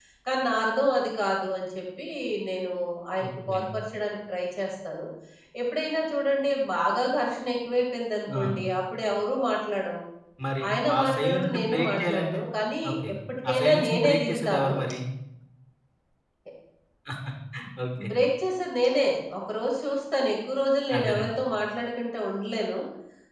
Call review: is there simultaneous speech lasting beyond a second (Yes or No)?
Yes